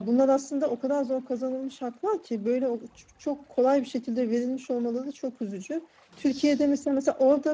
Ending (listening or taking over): listening